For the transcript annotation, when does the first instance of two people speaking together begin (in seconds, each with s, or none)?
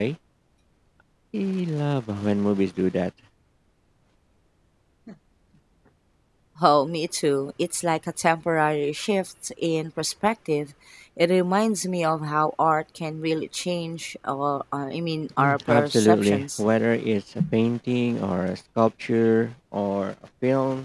15.4 s